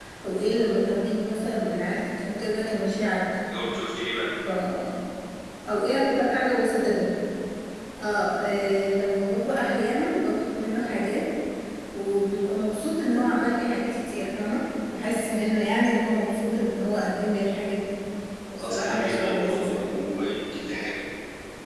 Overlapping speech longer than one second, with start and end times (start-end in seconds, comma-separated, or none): 18.6-19.8